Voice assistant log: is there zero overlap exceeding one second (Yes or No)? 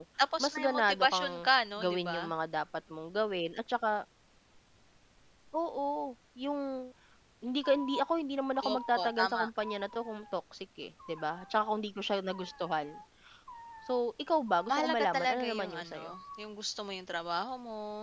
No